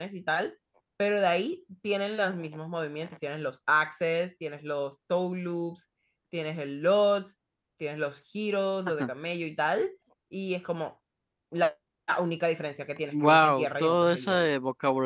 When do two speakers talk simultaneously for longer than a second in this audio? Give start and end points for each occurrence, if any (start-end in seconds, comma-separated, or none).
13.1-14.5